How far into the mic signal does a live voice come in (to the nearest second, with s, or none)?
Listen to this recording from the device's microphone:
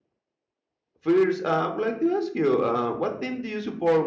1 s